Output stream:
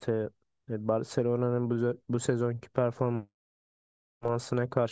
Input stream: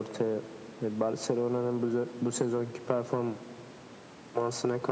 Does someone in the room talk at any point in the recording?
No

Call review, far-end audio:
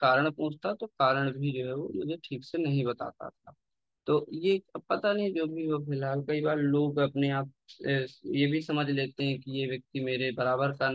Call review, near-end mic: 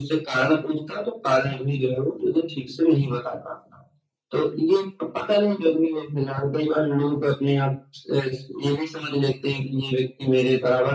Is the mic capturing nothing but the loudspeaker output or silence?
Yes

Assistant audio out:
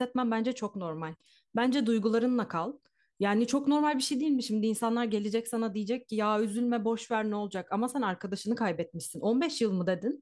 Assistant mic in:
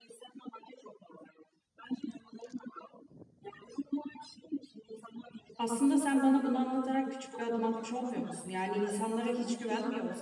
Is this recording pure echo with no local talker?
No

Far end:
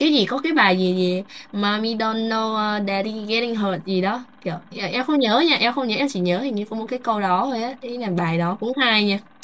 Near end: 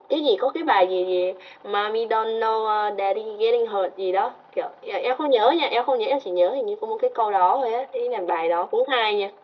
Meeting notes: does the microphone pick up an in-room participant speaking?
No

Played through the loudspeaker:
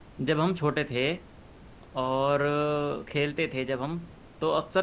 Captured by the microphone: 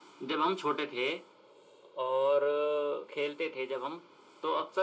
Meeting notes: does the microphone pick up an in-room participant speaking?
No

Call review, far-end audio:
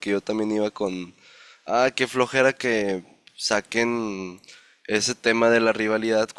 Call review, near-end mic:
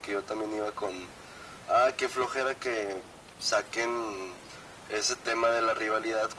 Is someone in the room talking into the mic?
No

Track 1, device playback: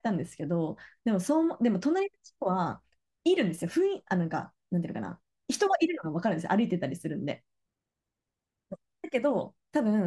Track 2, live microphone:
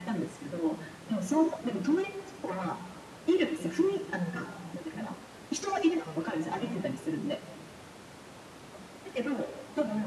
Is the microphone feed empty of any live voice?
Yes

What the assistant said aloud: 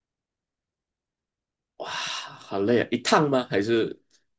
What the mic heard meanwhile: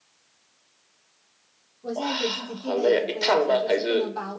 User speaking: Yes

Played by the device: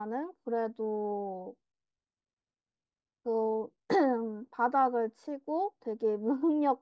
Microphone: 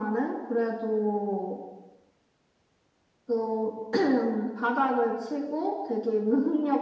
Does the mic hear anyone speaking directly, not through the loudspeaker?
No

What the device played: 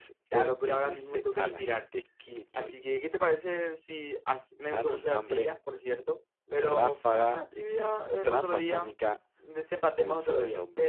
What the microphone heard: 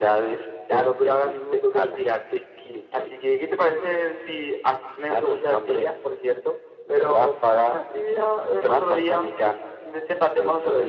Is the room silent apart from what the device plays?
Yes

